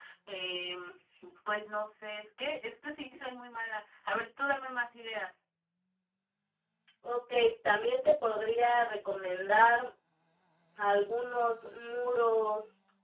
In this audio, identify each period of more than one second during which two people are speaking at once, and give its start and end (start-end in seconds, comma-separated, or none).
none